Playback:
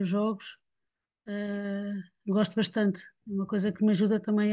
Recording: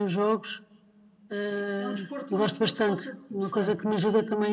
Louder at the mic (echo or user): echo